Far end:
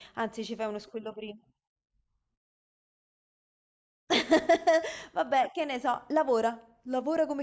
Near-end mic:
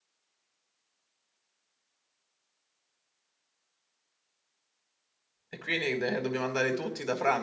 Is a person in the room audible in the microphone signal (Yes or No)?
Yes